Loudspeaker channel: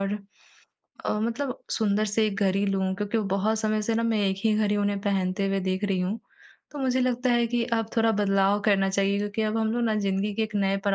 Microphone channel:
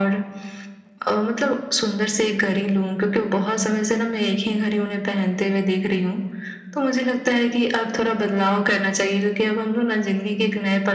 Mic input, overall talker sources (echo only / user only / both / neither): echo only